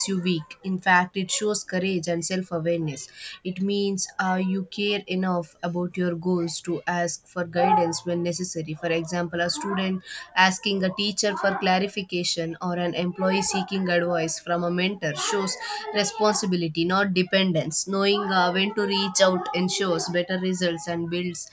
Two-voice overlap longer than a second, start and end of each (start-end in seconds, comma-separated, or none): none